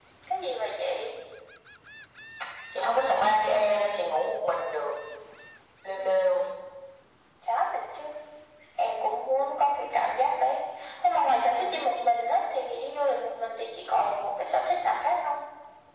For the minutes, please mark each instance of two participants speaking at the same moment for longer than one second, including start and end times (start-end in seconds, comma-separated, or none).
none